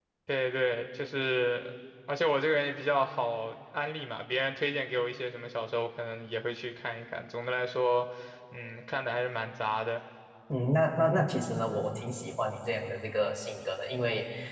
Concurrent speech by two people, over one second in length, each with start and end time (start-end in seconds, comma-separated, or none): none